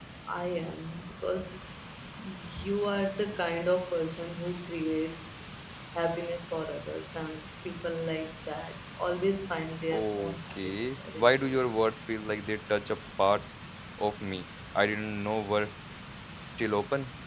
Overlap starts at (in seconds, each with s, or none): 9.9 s